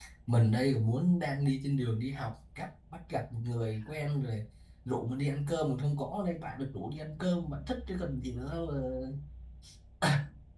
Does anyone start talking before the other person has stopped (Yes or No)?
No